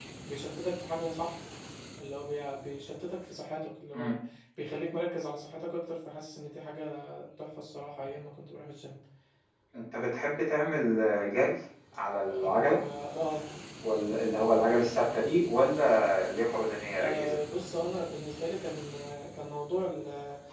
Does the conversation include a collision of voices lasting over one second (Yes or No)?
No